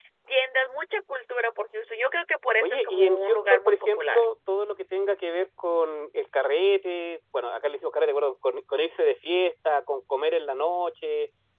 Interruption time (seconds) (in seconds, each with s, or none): 2.6 s